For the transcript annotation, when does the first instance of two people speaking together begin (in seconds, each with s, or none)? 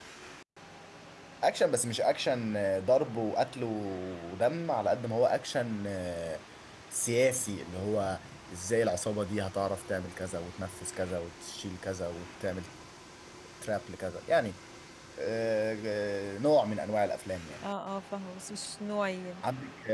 none